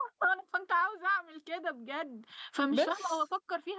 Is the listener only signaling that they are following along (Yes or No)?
Yes